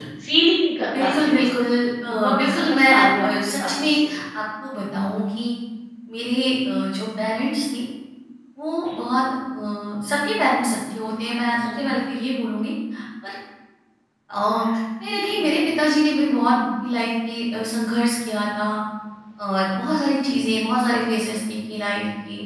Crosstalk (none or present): present